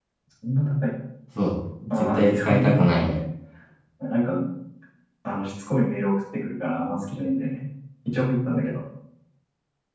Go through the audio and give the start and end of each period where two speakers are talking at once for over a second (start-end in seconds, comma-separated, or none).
2.0-3.2